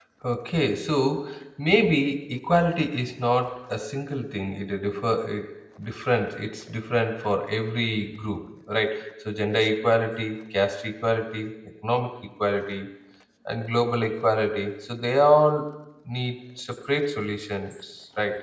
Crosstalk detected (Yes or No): No